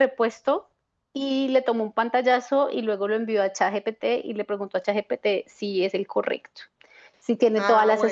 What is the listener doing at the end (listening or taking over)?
listening